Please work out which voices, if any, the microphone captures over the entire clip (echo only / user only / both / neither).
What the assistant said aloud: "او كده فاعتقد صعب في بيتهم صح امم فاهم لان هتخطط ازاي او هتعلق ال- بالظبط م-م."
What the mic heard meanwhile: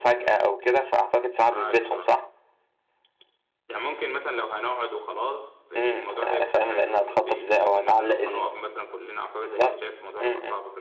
both